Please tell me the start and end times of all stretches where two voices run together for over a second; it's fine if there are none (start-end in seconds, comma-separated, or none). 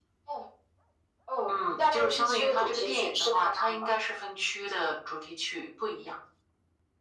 1.5-3.9